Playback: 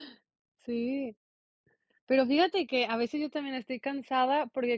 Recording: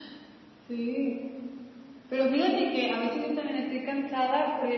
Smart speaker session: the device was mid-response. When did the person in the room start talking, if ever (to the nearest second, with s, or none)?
none